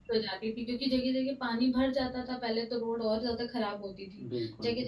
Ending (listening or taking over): listening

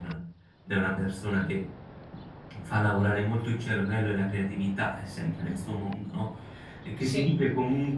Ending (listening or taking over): listening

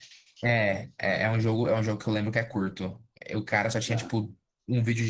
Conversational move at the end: listening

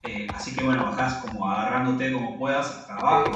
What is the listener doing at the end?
listening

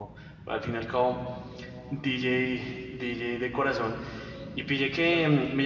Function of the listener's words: listening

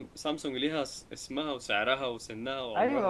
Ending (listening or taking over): taking over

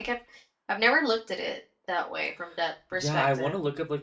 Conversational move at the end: taking over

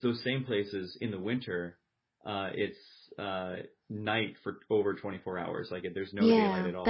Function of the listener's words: taking over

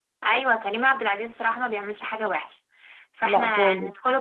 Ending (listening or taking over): listening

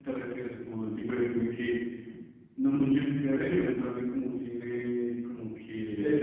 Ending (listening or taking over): taking over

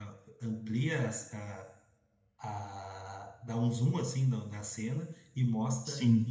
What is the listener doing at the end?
listening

